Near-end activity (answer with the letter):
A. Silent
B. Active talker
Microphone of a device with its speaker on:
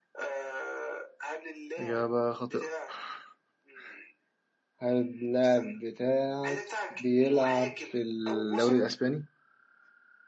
B